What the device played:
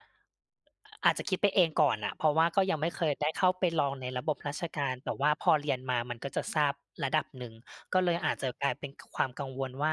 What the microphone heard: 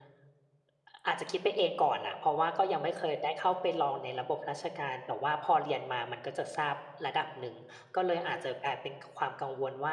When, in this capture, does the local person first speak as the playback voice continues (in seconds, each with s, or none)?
none